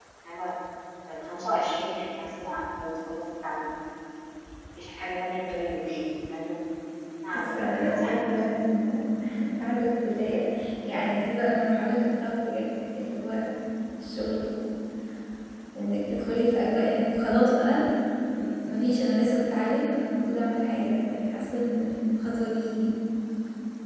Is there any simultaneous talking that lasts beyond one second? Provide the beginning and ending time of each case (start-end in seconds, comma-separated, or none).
7.3-8.5